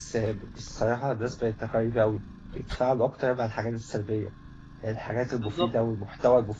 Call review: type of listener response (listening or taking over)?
listening